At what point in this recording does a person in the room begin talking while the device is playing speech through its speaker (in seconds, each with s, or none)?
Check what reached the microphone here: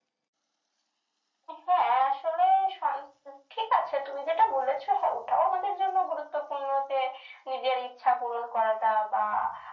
none